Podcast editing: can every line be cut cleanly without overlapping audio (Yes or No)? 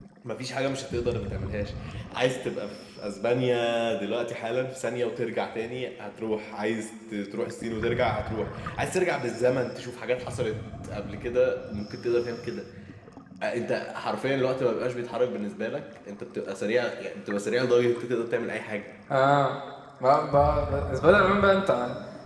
Yes